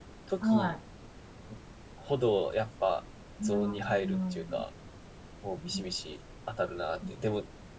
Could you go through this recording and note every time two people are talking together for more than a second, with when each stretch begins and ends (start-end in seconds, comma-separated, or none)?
3.4-4.6